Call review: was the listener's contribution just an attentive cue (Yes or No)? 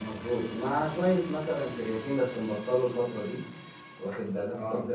Yes